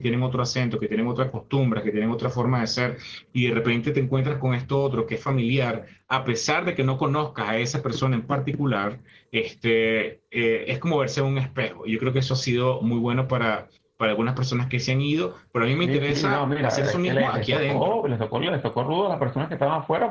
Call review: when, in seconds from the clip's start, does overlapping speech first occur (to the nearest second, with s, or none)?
16 s